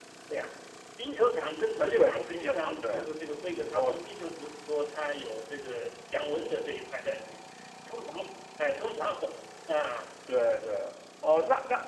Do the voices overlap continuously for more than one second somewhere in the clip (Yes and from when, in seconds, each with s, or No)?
Yes, from 1.8 s